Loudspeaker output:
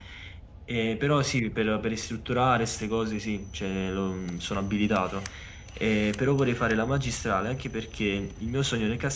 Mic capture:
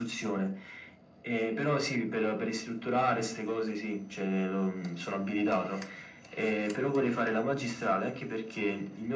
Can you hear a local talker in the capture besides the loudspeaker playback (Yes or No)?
No